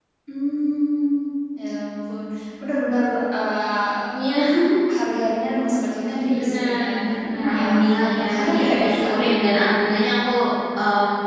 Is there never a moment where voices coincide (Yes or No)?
No